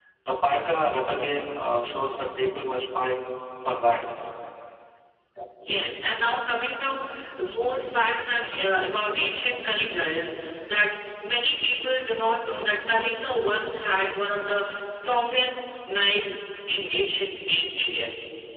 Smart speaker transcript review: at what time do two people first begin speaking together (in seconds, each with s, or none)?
none